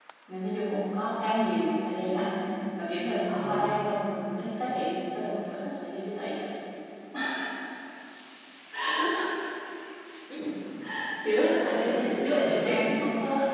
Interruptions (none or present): present